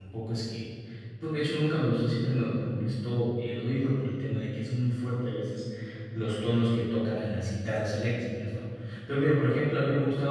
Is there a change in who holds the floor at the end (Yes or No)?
No